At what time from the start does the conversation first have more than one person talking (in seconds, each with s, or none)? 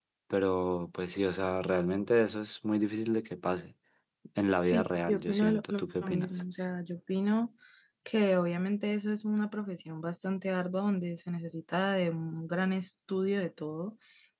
4.6 s